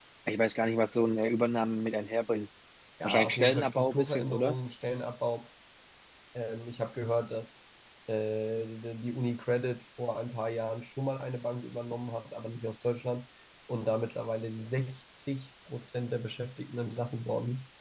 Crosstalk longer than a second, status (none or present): present